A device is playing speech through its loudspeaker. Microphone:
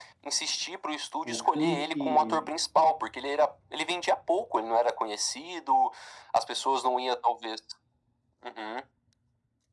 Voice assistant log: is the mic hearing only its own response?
No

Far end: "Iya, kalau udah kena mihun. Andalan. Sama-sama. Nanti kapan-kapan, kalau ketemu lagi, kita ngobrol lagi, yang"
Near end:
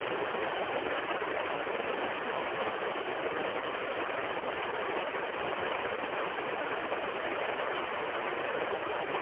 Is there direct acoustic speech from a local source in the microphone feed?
No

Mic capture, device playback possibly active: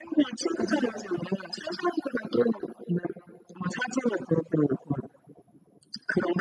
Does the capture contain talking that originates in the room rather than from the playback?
Yes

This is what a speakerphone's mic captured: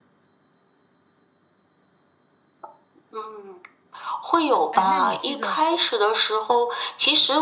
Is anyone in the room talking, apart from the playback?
Yes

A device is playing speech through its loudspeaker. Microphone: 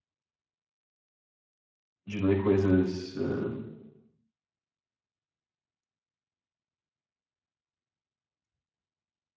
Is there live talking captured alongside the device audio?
Yes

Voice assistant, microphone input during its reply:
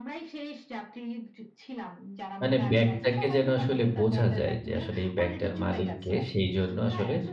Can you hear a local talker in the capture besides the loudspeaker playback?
Yes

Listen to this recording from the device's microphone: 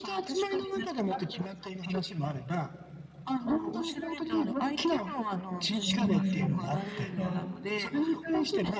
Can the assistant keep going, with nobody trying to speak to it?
No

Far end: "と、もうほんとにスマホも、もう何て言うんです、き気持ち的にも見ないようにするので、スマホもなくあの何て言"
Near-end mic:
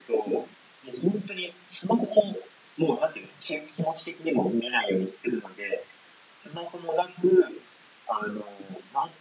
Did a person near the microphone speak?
No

